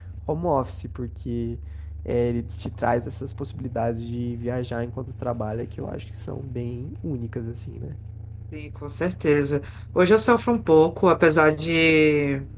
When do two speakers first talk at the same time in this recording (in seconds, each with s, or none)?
none